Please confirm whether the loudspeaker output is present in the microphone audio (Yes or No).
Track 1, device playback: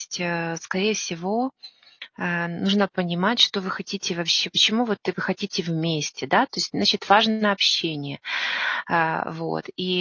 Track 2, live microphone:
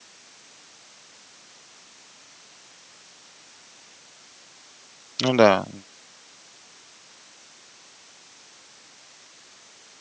No